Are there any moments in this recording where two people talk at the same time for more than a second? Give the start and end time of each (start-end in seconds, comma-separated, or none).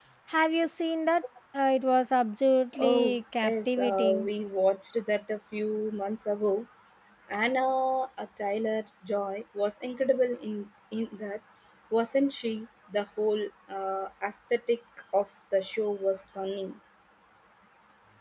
2.8-4.3